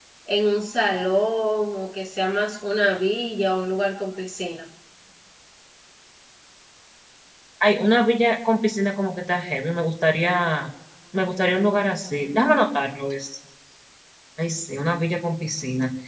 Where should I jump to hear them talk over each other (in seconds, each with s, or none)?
none